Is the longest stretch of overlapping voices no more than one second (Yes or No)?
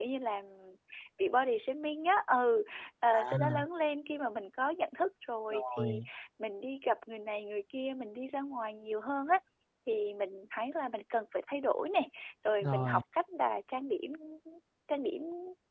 Yes